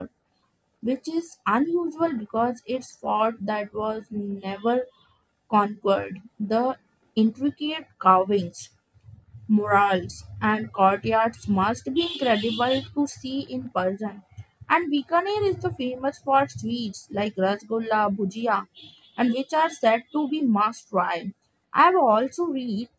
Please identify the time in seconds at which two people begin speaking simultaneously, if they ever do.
none

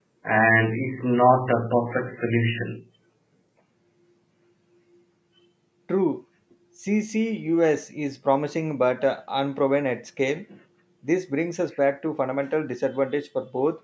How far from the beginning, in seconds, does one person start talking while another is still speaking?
none

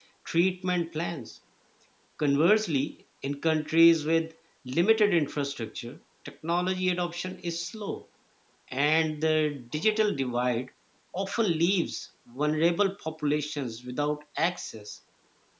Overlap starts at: none

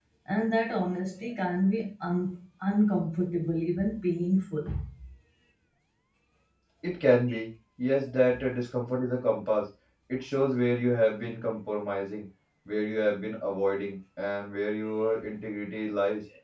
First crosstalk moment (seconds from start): none

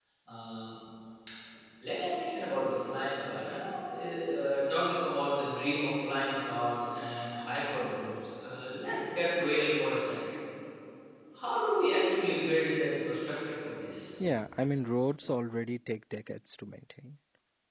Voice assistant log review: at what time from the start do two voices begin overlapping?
none

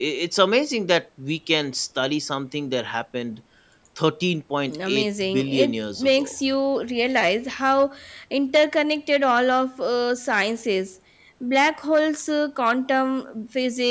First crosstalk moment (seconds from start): 4.7 s

